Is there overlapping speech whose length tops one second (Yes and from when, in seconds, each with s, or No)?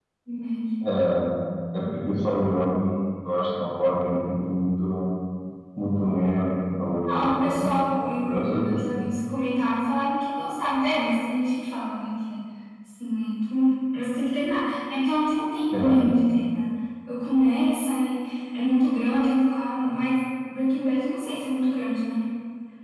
Yes, from 7.1 s